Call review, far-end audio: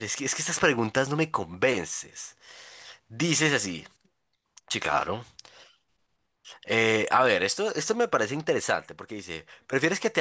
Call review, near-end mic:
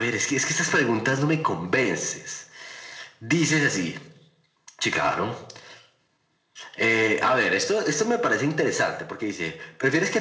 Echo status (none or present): present